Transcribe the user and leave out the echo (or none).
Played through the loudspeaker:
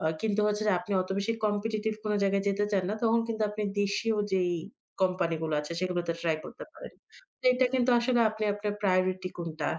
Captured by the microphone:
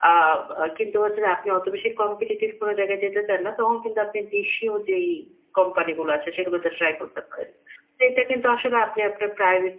none